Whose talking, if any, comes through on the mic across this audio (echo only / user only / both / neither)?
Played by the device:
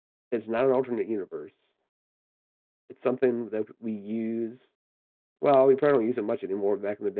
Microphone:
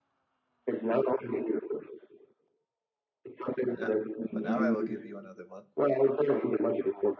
both